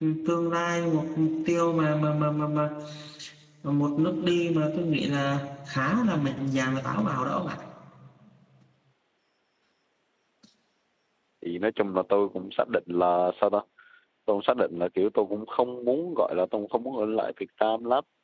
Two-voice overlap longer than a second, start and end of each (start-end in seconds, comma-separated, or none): none